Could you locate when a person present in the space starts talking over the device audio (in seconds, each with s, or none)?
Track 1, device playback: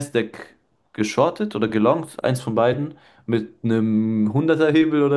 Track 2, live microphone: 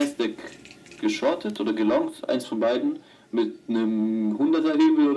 none